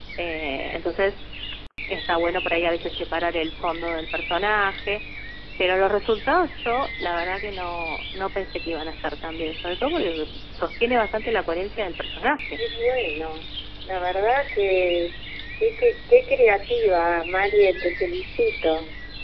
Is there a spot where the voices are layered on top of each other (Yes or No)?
No